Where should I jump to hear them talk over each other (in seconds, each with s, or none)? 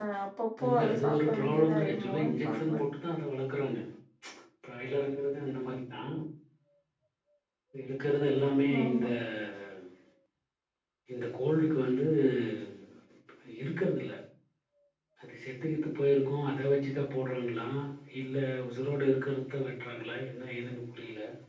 0.6 s